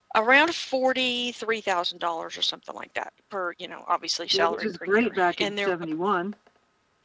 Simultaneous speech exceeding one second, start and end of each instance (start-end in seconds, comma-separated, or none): 4.3-5.8